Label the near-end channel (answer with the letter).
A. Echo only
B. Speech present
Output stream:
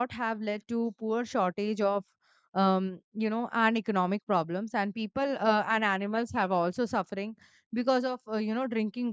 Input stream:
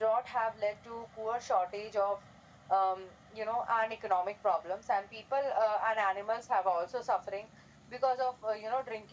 A